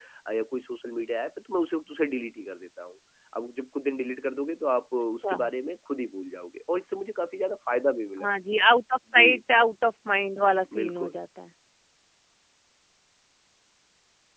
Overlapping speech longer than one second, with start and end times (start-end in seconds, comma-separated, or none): none